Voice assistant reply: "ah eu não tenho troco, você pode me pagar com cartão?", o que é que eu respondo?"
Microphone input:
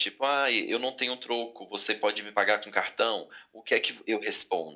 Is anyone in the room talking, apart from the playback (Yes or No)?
No